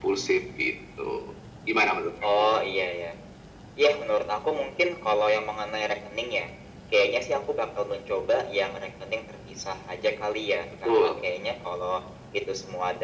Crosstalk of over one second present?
No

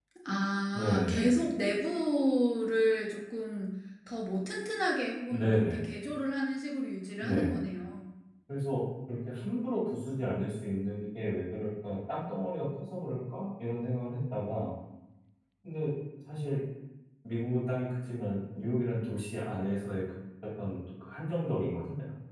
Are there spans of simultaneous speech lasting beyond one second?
No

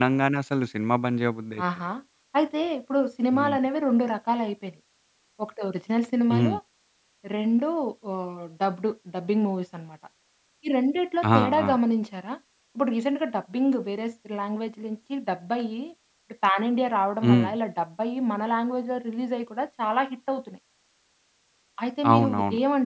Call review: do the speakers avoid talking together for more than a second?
Yes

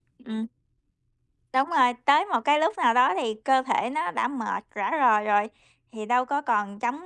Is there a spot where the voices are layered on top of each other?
No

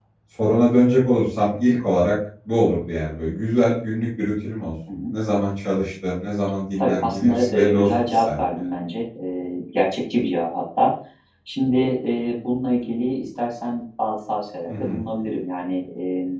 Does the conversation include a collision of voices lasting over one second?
Yes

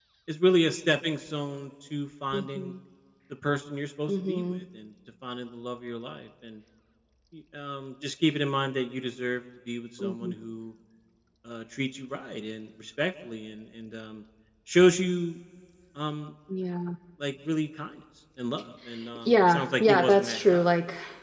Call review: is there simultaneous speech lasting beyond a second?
Yes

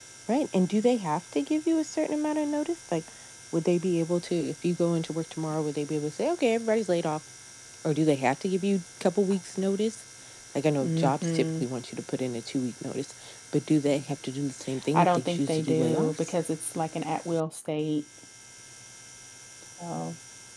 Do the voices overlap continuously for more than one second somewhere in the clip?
Yes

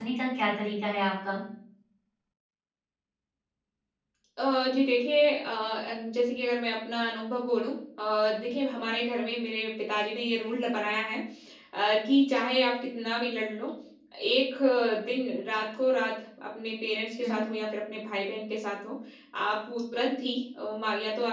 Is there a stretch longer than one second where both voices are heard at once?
No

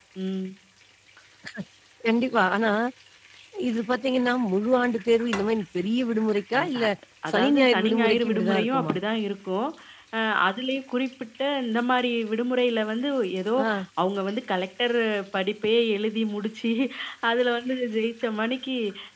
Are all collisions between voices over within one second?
No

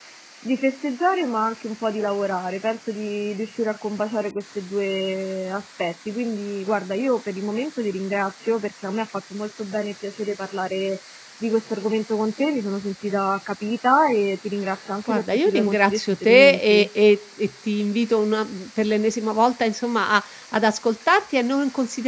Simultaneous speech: Yes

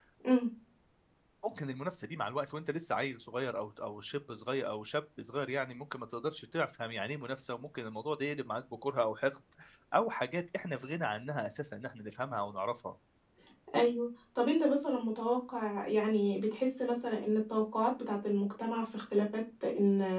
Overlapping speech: No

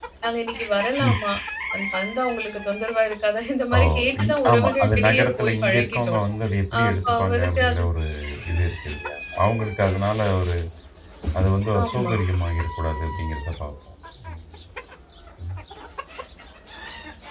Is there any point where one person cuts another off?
Yes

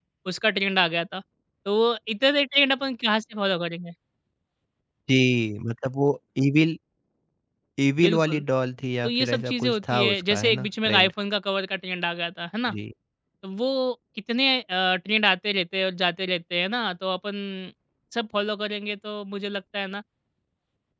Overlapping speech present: Yes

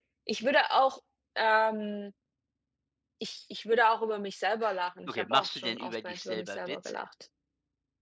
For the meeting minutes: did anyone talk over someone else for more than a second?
Yes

